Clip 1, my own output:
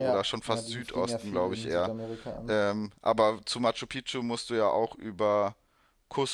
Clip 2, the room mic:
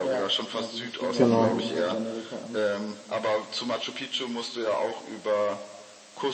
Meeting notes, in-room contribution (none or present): present